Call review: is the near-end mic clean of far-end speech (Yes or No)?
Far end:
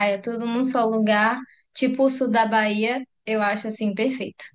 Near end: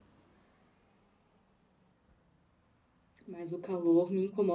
Yes